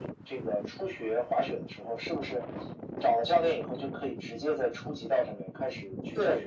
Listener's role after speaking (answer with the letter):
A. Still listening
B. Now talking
B